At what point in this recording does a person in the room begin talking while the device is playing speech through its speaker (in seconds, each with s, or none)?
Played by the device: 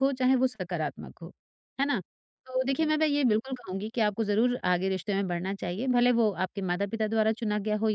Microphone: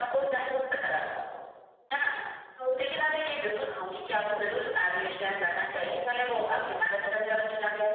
none